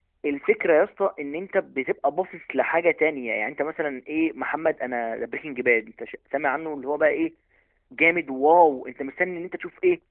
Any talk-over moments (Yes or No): No